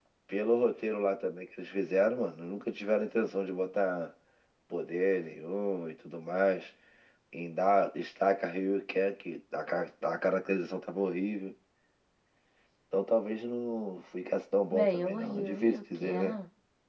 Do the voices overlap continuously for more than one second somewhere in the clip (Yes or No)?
Yes